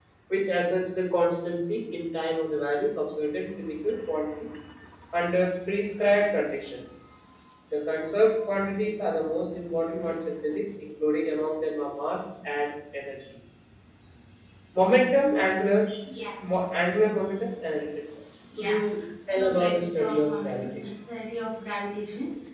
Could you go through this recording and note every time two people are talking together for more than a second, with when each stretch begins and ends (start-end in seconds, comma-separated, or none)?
19.3-20.9